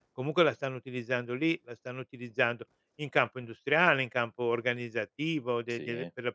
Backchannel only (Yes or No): Yes